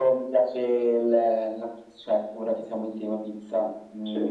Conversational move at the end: listening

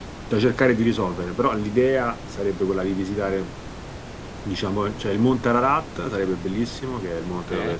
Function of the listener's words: listening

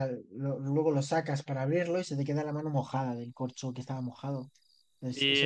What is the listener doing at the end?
taking over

